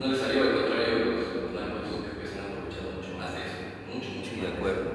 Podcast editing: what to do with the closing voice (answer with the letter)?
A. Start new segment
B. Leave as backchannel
A